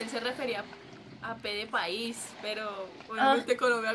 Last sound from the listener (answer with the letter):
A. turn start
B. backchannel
B